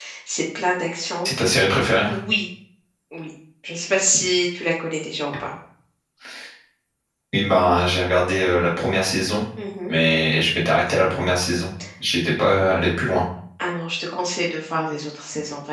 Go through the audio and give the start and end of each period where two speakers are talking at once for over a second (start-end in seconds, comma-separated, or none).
none